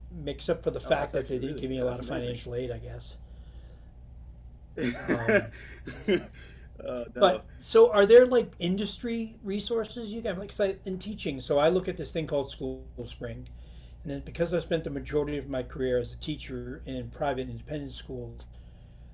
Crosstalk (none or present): present